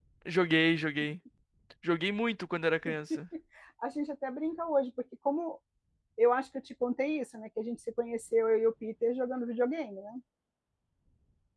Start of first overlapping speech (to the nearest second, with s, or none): none